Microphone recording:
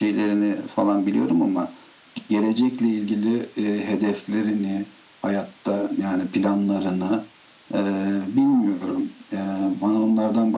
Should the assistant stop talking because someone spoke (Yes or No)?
No